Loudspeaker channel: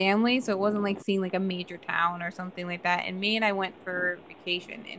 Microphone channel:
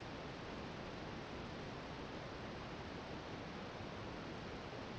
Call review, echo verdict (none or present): none